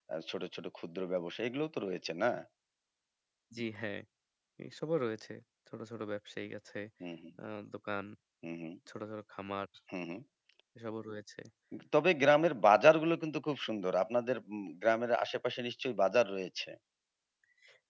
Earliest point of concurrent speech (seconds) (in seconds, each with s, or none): none